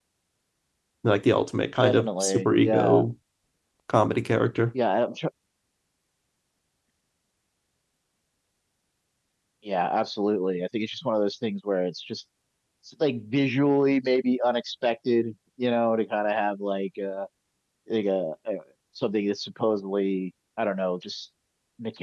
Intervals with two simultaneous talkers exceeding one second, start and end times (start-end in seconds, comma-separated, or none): 1.8-3.0